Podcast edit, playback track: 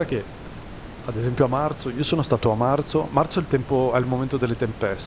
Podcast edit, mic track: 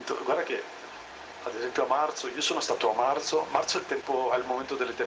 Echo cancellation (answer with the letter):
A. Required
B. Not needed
A